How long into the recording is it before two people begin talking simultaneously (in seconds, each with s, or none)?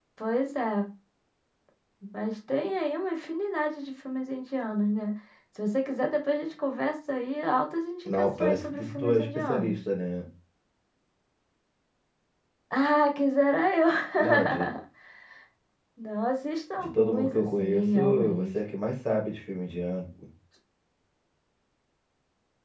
8.1 s